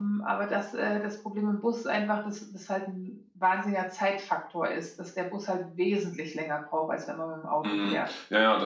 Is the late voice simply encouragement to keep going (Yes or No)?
No